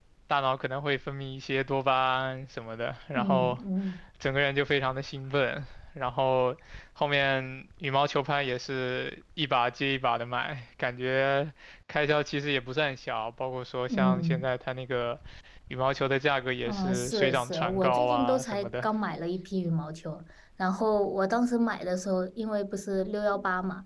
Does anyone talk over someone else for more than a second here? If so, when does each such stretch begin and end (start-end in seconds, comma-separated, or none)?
16.6-18.9